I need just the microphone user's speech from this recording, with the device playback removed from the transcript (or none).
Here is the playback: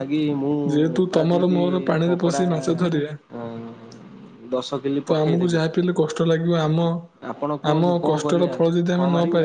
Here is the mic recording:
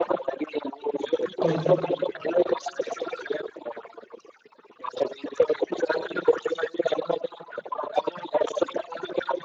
କୁହନ୍ତୁ।